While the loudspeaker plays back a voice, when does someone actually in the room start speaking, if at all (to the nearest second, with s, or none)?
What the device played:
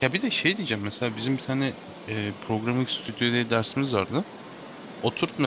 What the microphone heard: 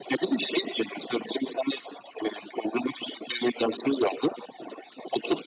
none